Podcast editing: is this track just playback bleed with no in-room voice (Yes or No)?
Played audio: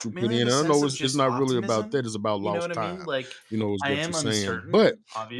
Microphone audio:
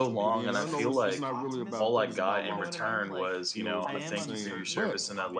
No